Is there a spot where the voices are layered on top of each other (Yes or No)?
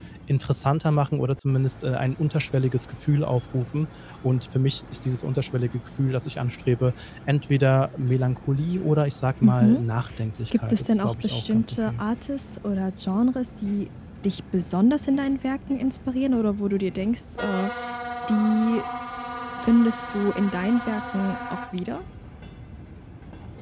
Yes